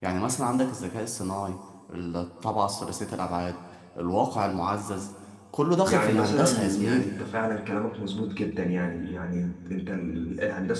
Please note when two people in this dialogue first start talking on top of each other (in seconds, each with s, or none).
5.9 s